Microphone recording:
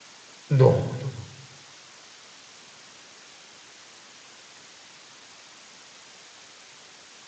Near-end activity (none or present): present